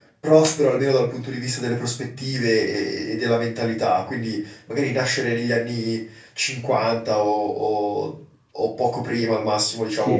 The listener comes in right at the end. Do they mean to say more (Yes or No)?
Yes